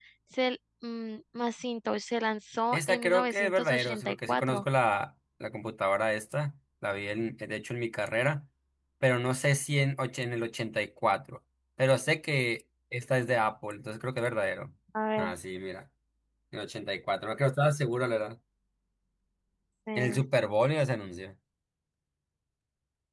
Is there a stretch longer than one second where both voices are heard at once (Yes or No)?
Yes